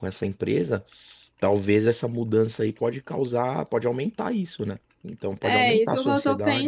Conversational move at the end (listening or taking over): taking over